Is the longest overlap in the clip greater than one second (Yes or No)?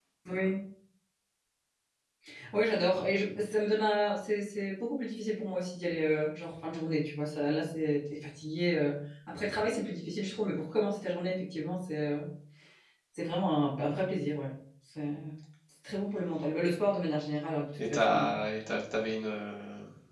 No